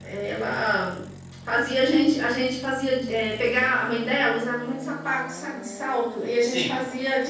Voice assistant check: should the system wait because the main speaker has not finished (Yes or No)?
Yes